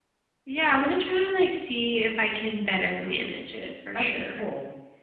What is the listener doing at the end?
taking over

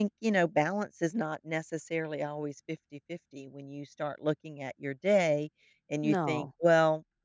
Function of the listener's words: listening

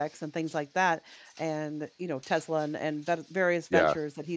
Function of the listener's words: listening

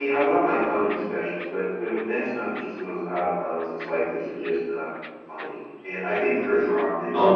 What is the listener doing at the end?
listening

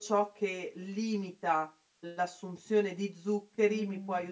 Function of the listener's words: listening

